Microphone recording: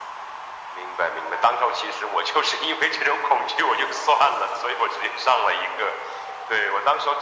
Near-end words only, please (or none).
none